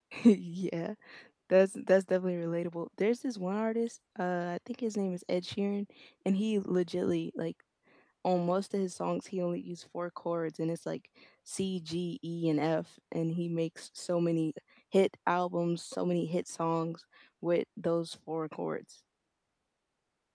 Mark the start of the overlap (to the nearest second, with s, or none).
none